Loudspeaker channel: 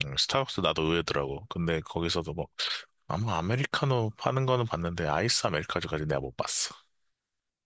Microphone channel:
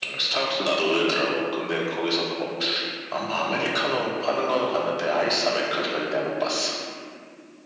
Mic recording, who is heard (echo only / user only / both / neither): echo only